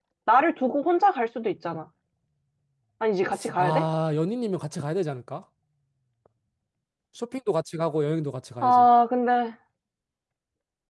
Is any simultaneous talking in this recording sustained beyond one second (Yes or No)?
No